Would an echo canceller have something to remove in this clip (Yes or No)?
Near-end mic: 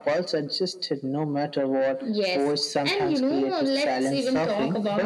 Yes